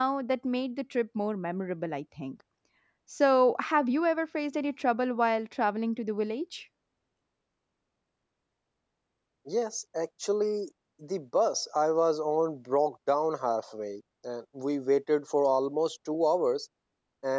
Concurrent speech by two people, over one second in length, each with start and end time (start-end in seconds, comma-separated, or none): none